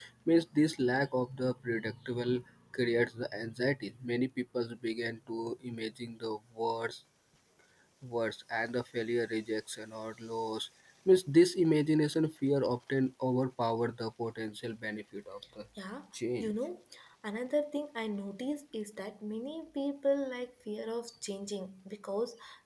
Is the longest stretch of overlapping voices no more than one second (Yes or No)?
Yes